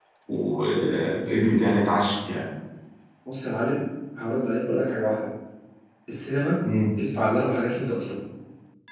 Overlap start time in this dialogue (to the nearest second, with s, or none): none